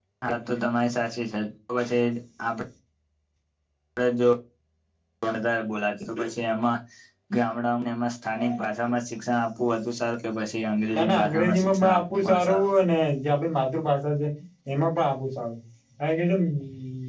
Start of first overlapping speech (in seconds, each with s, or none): 10.9 s